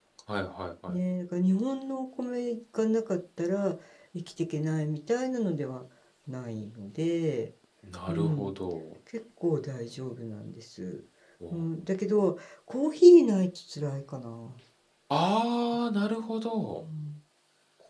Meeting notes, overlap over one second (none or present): none